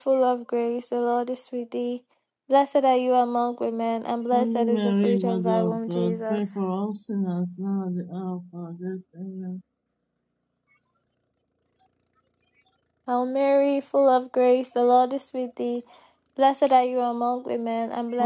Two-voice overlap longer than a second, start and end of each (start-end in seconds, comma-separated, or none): 4.3-6.5